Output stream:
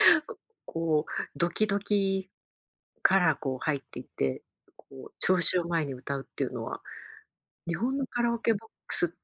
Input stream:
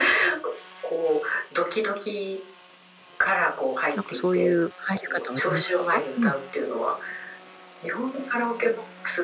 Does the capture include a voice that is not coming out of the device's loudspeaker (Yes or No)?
Yes